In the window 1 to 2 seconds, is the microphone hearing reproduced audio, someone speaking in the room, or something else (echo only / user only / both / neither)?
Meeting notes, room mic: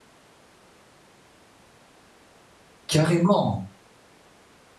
neither